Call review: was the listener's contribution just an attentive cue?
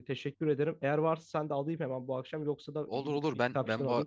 No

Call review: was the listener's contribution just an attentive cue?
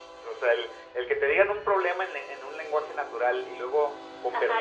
No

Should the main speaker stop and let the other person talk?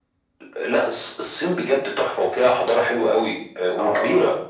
Yes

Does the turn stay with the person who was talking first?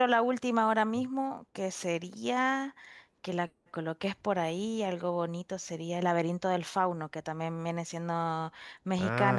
Yes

